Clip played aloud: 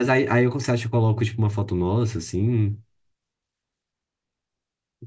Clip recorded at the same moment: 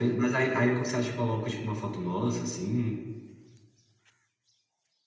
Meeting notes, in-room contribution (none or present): none